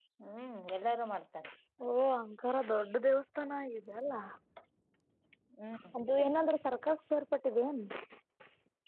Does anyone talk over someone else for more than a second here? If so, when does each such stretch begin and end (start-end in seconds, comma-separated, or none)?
none